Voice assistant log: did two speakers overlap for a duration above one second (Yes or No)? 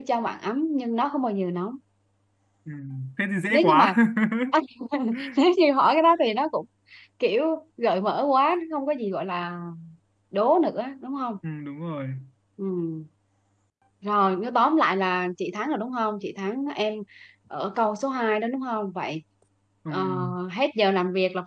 No